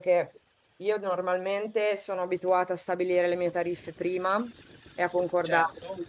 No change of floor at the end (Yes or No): Yes